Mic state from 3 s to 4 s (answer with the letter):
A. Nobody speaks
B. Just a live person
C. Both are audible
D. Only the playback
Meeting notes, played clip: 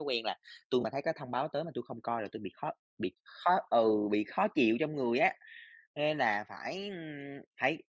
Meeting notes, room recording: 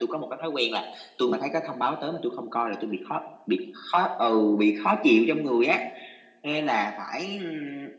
D